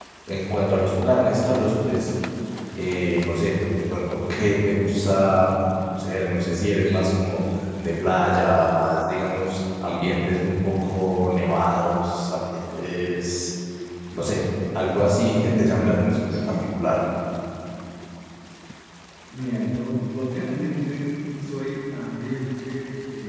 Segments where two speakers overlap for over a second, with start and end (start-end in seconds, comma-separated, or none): none